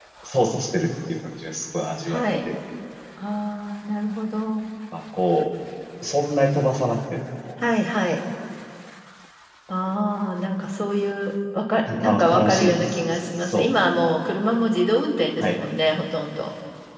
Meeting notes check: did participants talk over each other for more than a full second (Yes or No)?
Yes